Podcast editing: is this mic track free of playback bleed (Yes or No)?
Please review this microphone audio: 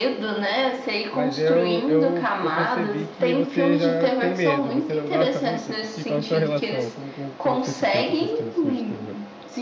No